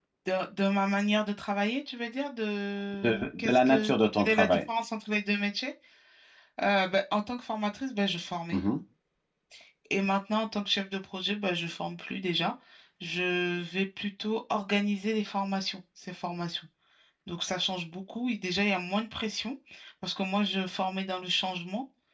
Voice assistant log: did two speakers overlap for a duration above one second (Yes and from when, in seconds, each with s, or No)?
Yes, from 3.0 s